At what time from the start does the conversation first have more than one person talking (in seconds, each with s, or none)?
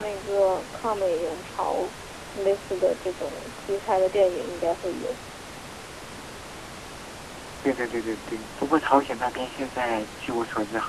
none